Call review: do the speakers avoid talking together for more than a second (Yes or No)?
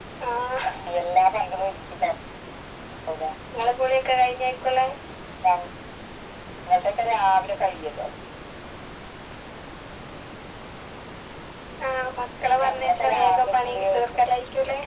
No